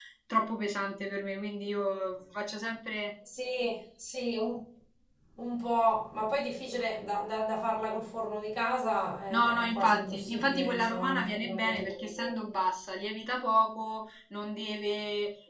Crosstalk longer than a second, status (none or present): present